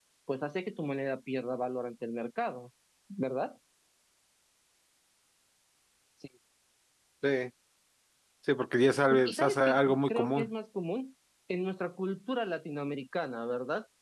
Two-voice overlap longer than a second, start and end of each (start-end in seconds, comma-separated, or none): 9.1-10.5